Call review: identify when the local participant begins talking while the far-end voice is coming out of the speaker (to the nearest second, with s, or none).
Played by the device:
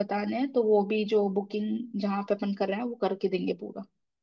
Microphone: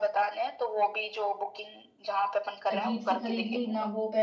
3 s